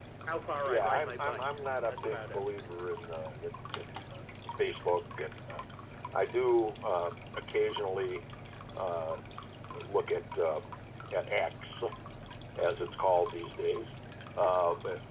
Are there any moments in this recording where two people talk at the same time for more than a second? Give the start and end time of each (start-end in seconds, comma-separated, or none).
0.6-2.4